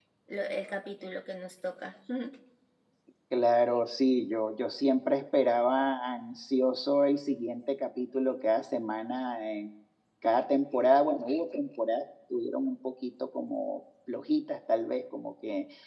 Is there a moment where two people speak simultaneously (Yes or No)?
No